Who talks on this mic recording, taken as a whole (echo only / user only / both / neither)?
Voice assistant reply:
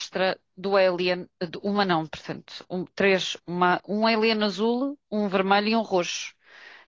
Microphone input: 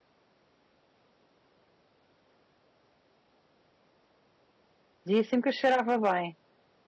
user only